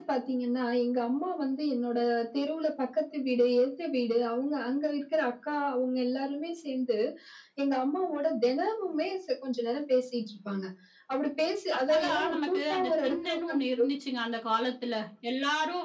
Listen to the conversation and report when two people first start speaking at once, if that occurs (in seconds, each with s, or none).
11.9 s